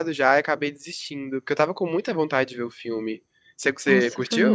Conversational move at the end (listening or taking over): taking over